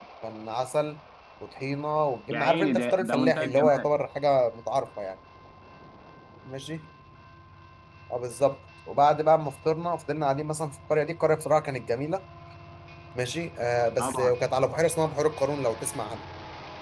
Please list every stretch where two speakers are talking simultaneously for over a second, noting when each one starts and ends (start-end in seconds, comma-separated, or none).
2.3-3.9